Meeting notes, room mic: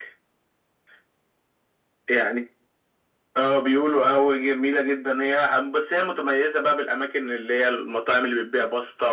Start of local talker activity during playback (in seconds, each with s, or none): none